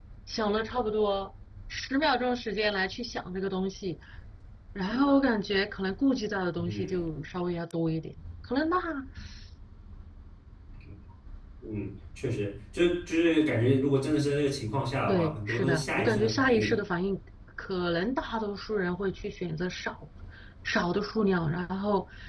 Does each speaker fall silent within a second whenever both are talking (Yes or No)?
No